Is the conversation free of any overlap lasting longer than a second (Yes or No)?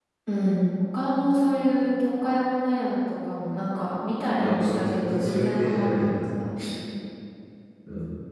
No